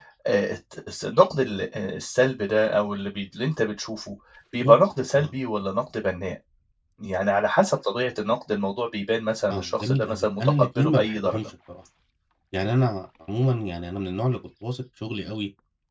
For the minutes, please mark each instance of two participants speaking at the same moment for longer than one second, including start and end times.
9.5-11.4

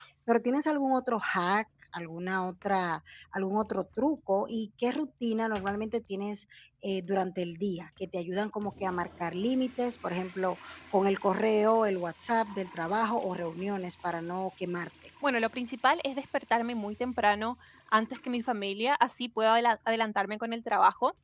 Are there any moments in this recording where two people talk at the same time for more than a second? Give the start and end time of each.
none

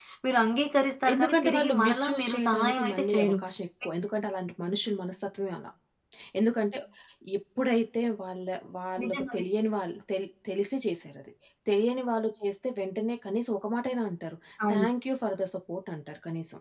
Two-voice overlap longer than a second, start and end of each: 1.1-3.4

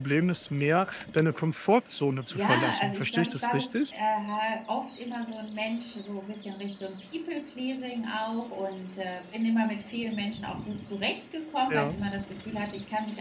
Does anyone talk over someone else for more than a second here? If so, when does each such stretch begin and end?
2.3-3.7

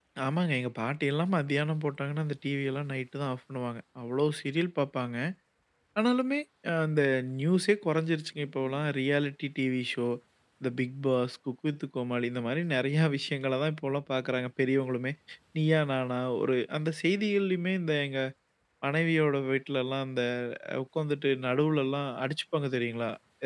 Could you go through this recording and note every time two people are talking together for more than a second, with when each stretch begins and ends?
none

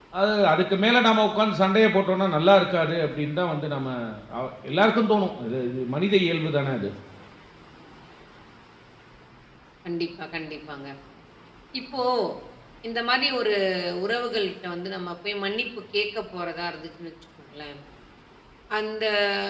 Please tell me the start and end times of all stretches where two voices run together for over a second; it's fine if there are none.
none

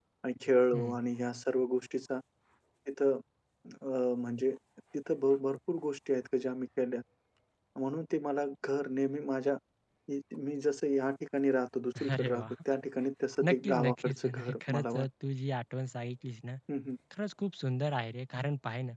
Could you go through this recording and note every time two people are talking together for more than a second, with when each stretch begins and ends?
13.5-15.1

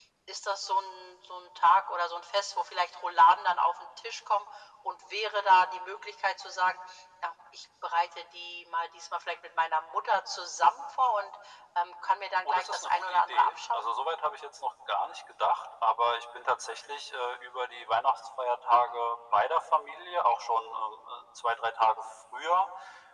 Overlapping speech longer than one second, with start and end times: 12.4-13.9

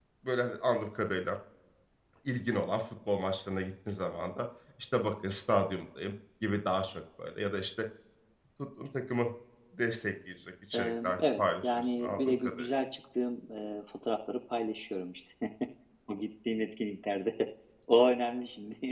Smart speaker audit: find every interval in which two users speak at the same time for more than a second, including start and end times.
10.7-12.7

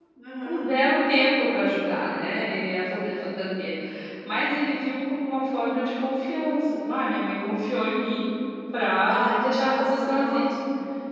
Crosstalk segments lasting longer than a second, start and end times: 9.1-10.5

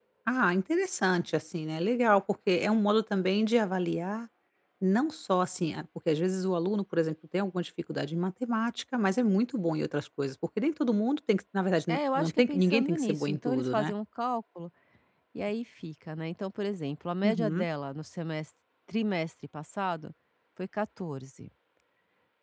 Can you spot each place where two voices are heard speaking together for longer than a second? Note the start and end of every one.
11.9-13.9

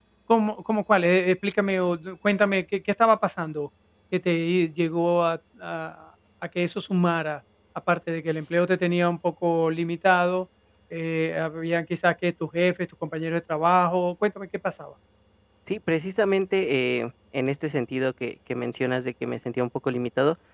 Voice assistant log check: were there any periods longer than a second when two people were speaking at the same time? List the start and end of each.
none

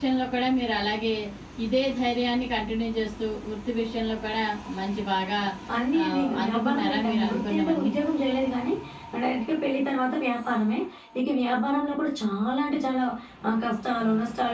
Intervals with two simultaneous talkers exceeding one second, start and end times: 6.0-7.9

